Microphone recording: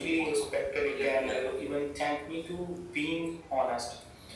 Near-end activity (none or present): none